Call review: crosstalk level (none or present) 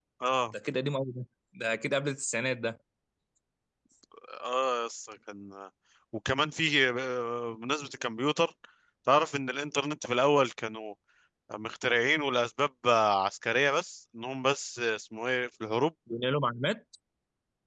none